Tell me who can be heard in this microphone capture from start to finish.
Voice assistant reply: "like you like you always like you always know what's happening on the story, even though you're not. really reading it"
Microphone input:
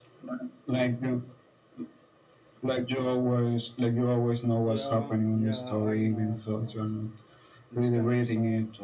both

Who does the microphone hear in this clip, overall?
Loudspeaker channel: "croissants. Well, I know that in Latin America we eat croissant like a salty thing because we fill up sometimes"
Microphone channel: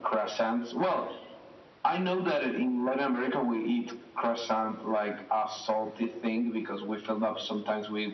echo only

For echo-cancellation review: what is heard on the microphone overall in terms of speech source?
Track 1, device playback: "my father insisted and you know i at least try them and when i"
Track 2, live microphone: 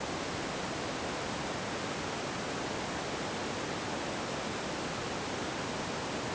neither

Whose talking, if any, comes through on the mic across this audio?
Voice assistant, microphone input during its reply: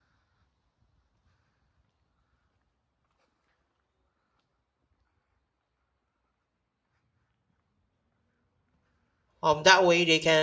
user only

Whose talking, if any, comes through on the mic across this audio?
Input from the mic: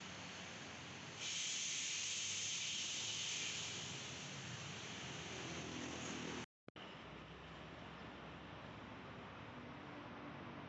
neither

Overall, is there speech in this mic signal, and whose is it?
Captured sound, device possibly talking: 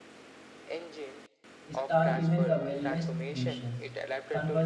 both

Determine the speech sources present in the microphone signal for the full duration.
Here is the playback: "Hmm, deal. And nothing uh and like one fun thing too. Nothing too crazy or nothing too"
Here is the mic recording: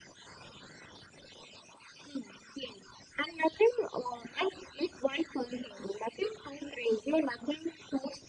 echo only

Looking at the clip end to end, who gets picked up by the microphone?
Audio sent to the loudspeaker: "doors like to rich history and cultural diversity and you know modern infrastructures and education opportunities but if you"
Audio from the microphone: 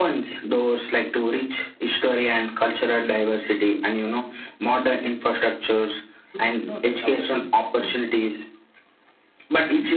both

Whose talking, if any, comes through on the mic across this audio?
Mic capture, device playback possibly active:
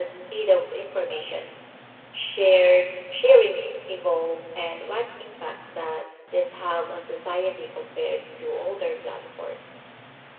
echo only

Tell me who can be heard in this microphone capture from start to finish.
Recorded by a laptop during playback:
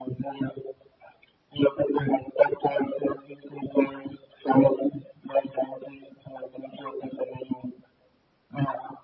echo only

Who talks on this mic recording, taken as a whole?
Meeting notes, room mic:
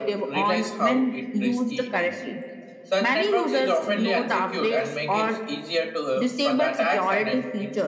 both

